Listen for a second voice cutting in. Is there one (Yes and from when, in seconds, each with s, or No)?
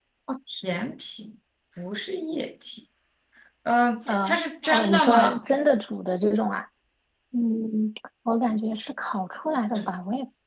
Yes, from 4.1 s